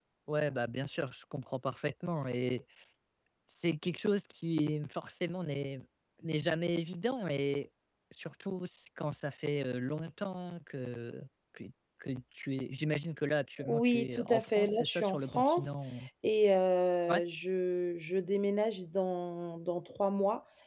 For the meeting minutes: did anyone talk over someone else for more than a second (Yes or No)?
Yes